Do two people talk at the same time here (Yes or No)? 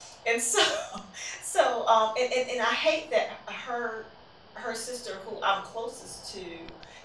No